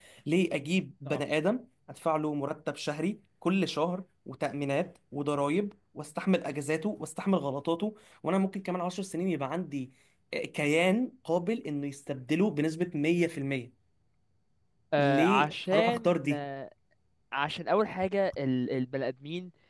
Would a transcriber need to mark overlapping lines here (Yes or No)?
Yes